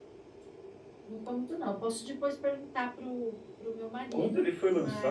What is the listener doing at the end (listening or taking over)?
taking over